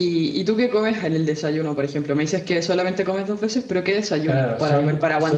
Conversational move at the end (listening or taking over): taking over